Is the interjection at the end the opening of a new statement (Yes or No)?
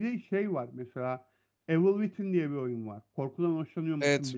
Yes